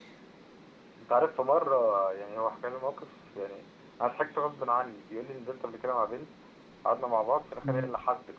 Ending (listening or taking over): listening